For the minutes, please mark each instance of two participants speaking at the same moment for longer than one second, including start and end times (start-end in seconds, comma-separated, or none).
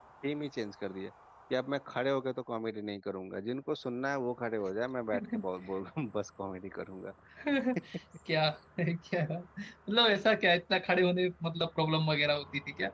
none